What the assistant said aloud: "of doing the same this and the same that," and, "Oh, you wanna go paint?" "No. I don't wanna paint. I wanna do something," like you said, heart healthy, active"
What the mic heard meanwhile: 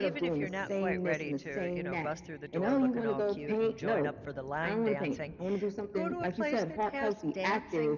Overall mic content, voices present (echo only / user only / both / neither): both